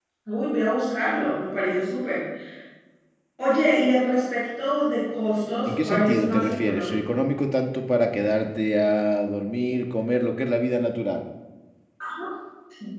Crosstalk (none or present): present